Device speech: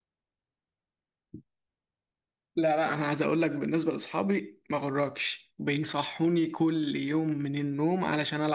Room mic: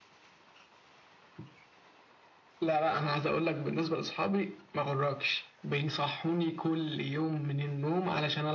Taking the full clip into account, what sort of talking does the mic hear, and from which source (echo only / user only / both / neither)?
echo only